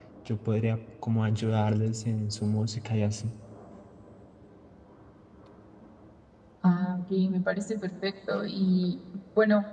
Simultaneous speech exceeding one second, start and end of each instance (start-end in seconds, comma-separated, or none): none